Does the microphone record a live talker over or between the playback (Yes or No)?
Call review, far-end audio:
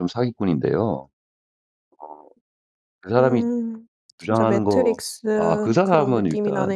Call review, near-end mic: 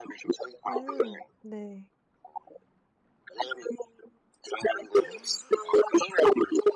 Yes